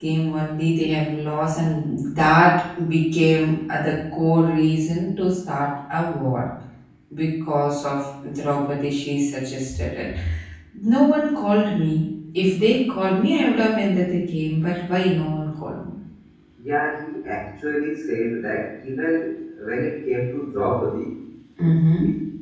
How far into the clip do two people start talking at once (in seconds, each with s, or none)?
none